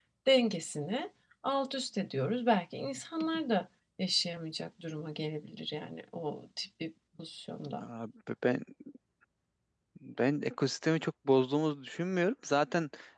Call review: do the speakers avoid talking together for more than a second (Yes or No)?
Yes